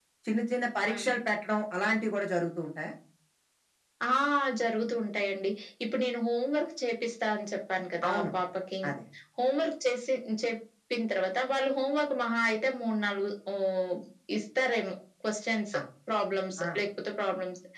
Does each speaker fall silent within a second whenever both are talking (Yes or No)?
Yes